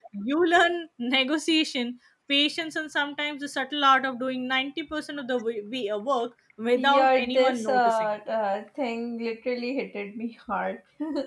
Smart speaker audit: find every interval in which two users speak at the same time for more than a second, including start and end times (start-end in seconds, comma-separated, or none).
6.8-8.1